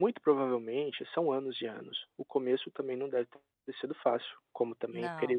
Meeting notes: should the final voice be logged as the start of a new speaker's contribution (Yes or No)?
No